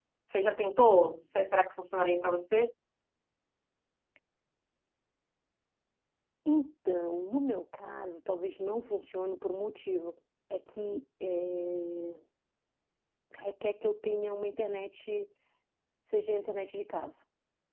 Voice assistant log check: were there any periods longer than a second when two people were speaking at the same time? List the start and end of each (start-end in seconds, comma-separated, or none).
none